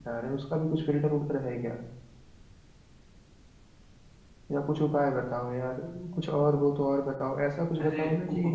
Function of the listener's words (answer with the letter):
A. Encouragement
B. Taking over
B